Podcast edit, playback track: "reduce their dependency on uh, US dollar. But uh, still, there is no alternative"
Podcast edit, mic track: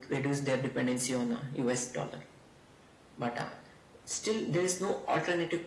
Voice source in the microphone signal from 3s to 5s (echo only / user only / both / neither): echo only